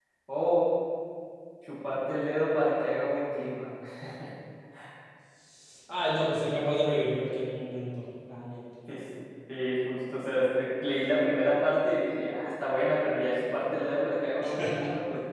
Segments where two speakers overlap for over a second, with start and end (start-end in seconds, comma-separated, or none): none